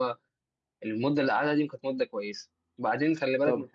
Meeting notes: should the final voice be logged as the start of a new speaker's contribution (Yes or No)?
No